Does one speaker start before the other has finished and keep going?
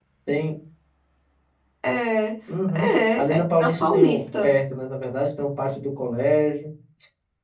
Yes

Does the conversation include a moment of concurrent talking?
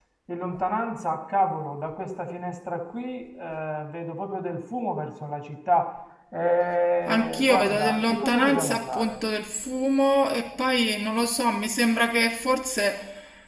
Yes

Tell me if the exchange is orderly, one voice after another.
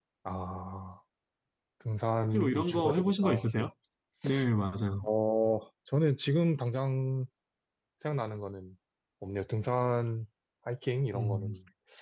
No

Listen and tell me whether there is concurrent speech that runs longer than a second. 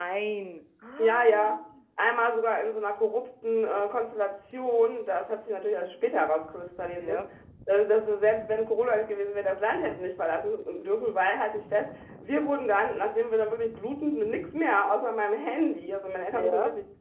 No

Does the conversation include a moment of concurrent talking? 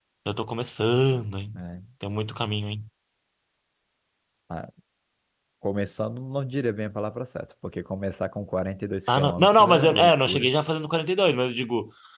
Yes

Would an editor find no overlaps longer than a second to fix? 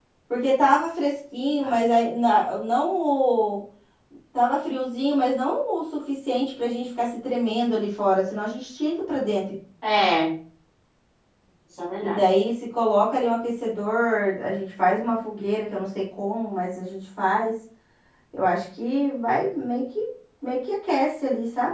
Yes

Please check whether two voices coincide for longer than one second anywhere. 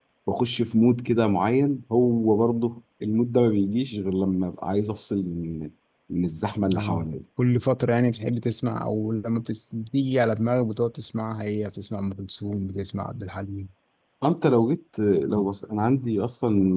No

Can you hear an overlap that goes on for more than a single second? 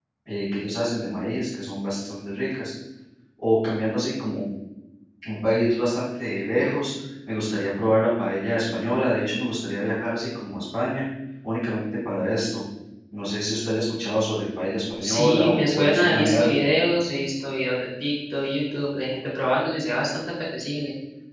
Yes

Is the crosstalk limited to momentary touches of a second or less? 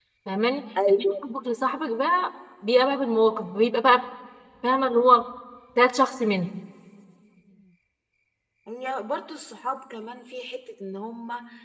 Yes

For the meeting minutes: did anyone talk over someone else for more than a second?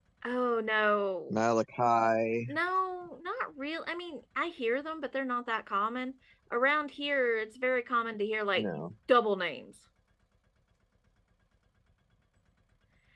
No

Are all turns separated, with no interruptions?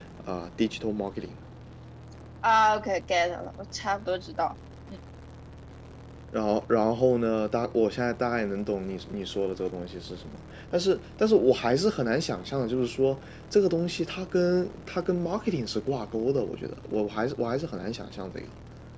Yes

